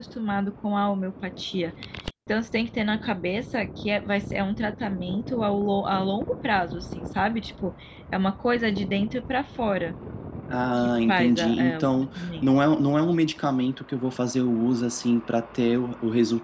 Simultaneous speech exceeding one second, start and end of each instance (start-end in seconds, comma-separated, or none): 10.8-12.4